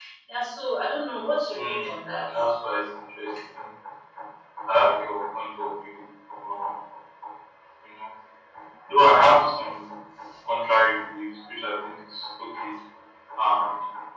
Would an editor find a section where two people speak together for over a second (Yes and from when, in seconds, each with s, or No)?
No